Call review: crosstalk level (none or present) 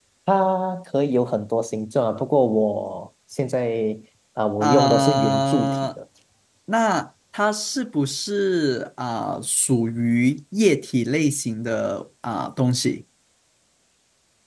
present